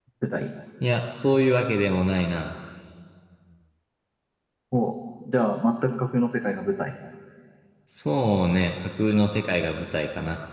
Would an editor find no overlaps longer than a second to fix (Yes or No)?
Yes